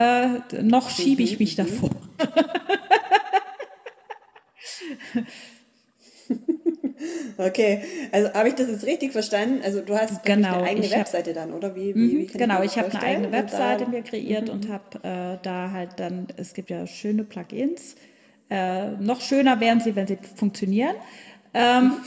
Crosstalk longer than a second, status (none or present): present